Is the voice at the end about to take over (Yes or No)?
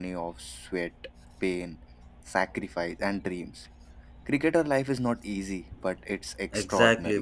Yes